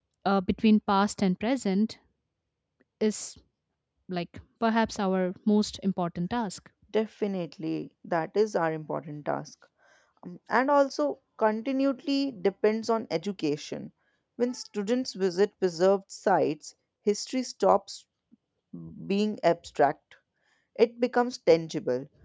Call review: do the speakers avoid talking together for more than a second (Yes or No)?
Yes